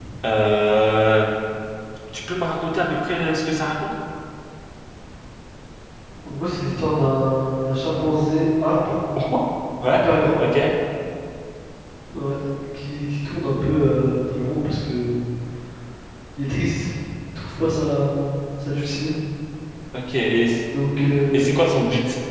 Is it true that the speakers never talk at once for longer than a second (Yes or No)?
Yes